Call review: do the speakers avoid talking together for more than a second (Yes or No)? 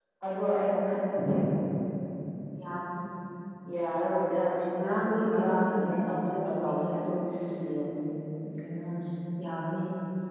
No